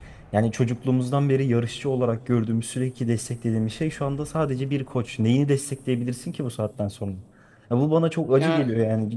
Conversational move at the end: listening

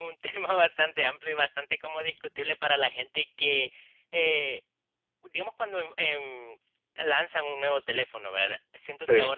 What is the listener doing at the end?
listening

